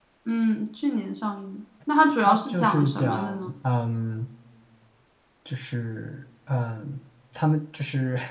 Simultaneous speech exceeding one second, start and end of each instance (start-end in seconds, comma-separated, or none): 2.2-3.5